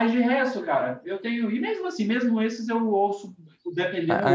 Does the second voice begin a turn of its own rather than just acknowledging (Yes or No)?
Yes